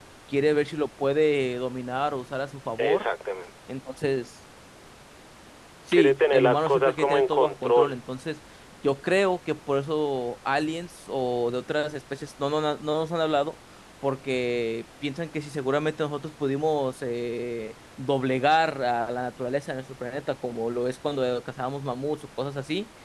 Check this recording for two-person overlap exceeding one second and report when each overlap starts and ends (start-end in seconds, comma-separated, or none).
5.9-8.0